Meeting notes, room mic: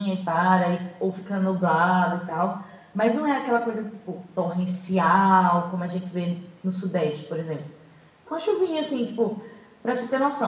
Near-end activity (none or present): none